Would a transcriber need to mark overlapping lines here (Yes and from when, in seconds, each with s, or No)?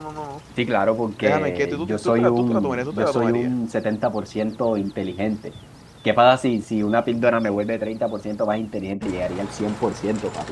Yes, from 1.2 s